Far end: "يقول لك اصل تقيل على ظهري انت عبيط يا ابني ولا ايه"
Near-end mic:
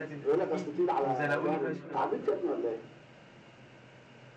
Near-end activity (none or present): present